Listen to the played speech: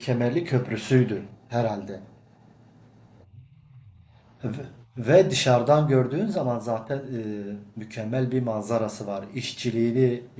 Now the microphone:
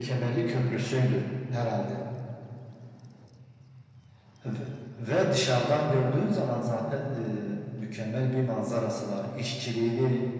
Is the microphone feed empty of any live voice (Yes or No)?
Yes